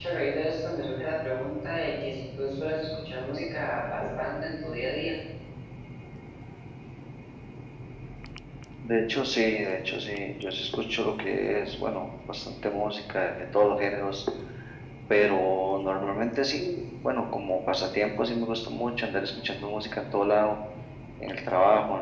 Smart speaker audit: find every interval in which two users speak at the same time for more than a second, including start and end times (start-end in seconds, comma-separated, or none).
none